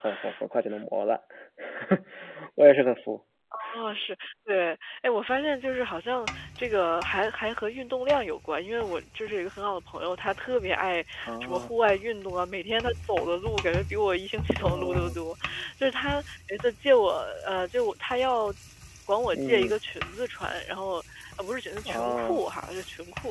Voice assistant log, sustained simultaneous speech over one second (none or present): none